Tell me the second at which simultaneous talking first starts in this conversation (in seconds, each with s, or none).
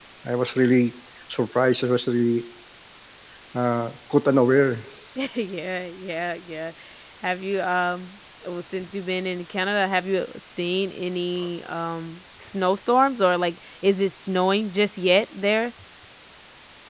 none